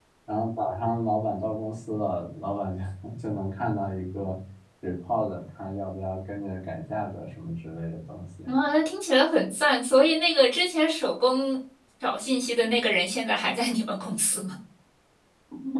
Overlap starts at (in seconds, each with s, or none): none